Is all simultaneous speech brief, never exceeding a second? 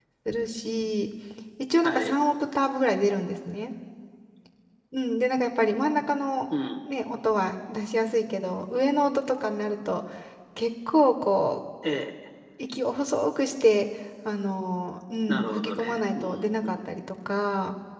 No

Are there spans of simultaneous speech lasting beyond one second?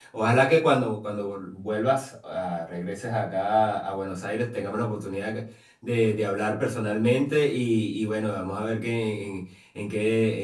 No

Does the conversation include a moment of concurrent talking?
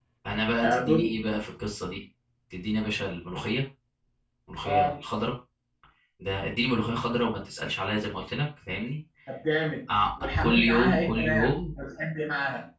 Yes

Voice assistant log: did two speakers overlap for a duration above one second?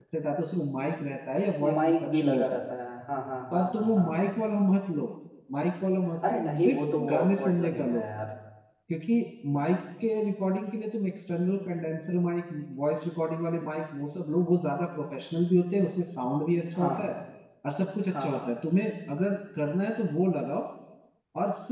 Yes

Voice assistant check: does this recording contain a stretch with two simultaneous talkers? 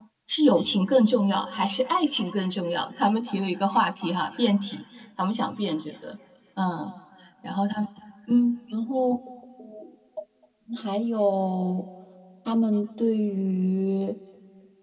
No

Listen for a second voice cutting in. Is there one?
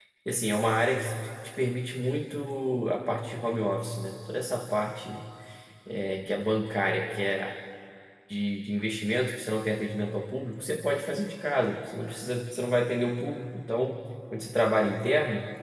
No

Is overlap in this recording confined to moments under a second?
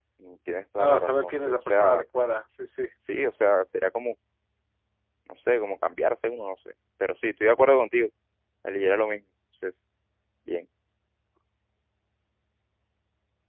No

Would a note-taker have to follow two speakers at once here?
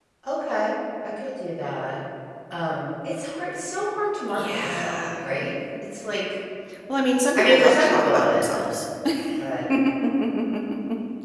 Yes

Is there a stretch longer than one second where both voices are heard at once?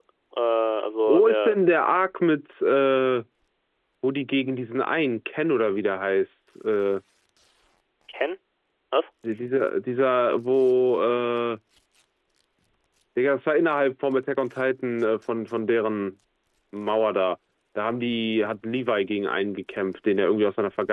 No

